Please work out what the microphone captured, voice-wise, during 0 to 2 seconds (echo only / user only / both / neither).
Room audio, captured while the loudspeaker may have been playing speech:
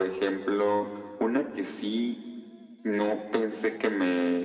echo only